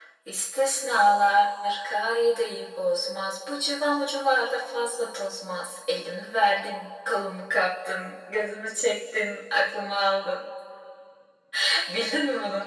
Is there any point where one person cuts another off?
No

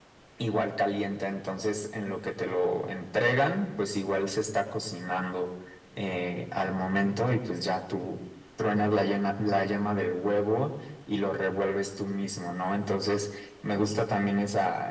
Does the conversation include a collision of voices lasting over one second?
No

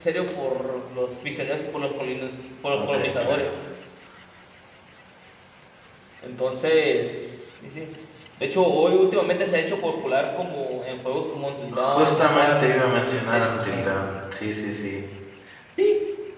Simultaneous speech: Yes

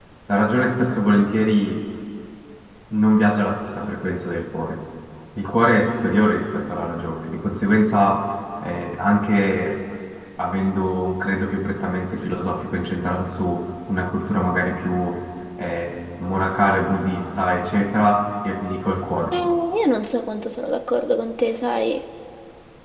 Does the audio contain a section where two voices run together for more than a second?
No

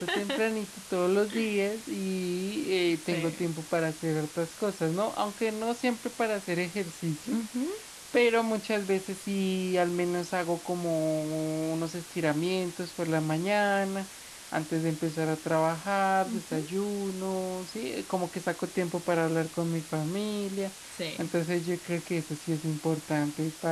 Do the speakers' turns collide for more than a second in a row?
No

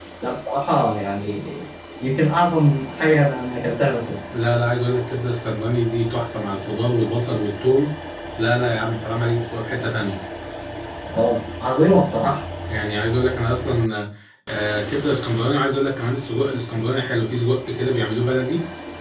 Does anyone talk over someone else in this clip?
No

